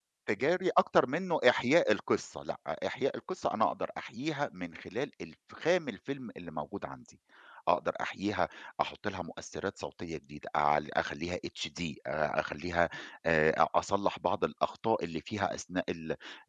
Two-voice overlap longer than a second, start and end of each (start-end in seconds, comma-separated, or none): none